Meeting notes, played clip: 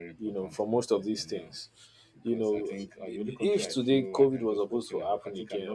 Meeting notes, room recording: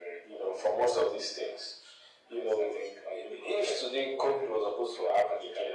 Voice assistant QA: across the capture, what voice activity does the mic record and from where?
echo only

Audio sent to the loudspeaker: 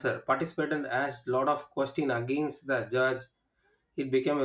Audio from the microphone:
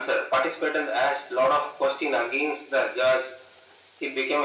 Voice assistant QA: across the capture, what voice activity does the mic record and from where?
echo only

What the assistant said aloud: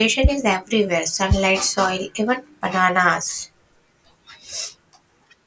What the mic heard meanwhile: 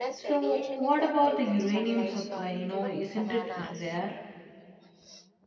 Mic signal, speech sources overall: both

